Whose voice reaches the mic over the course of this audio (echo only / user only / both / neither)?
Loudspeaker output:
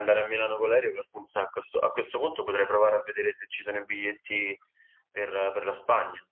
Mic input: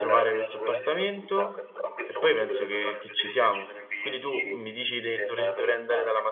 both